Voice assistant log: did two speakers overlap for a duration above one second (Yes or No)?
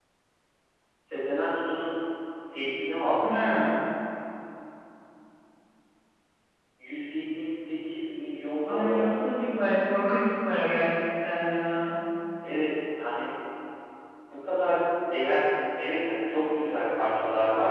No